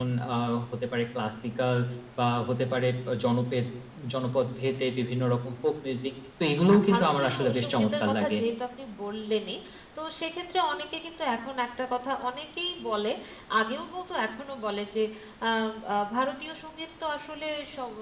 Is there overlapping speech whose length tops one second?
Yes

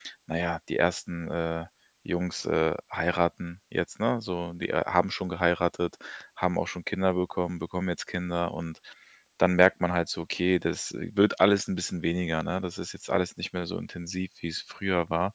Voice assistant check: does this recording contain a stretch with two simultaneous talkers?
No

